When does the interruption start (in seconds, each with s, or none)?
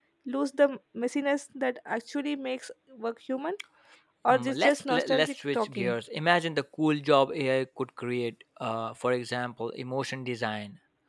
4.3 s